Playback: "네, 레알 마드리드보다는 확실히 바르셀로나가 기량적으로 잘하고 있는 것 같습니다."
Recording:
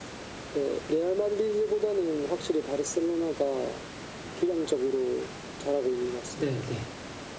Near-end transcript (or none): 네네.